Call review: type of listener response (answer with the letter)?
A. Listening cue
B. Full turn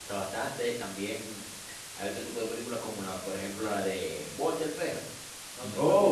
A